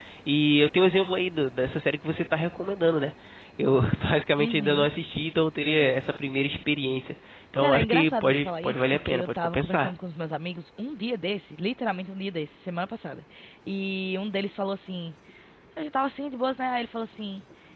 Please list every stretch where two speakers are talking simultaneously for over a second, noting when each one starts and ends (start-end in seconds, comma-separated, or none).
7.6-9.9